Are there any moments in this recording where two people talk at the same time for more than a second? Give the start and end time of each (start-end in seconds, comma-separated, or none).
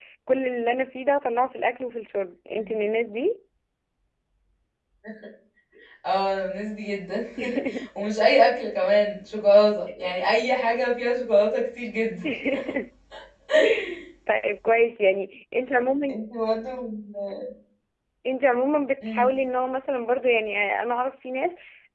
none